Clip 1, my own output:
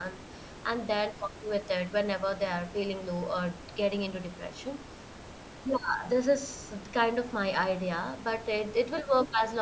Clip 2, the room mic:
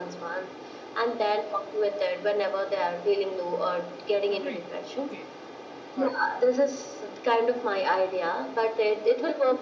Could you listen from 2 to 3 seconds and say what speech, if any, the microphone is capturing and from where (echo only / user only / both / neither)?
echo only